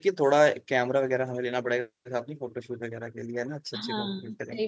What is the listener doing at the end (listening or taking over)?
taking over